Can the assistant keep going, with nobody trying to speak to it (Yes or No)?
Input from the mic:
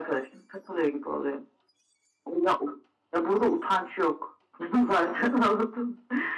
Yes